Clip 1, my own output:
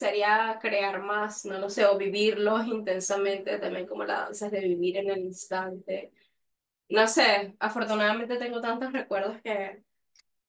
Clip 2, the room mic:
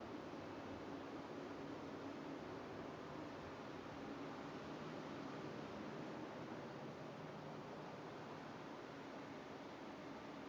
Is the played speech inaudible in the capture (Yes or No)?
Yes